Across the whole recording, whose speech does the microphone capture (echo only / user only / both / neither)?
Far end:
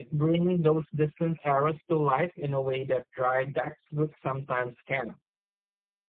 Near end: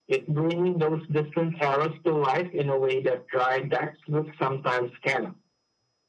echo only